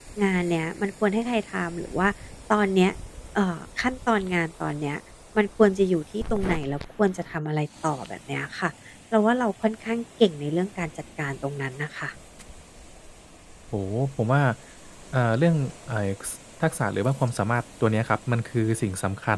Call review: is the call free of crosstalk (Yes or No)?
Yes